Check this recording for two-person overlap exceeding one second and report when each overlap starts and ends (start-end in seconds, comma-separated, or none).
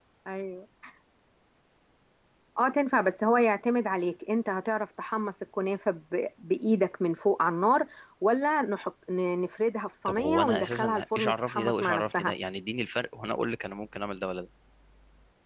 10.1-12.3